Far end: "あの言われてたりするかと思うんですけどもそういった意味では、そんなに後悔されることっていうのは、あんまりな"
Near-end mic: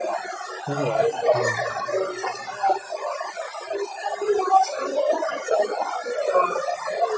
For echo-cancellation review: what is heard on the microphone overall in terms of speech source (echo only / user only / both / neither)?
both